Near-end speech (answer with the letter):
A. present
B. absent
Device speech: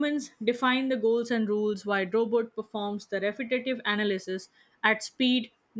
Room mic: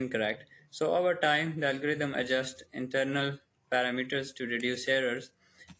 A